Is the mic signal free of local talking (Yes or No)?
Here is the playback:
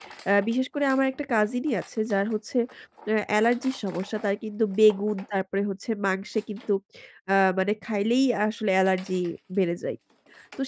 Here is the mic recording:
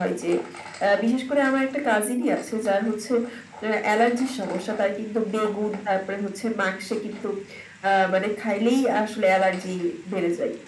Yes